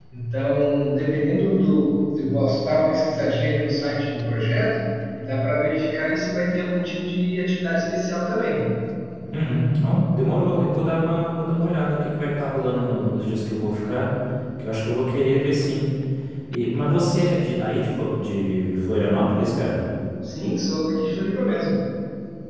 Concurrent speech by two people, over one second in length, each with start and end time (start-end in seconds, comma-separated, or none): none